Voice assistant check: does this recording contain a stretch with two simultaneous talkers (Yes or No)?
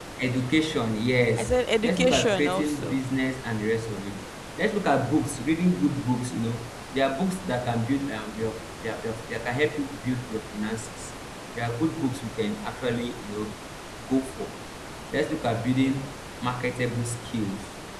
Yes